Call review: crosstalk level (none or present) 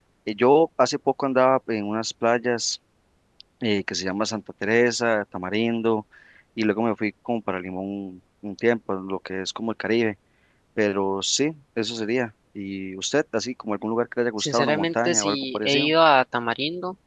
present